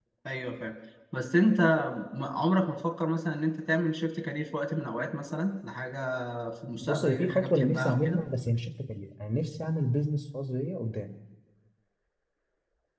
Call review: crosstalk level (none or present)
present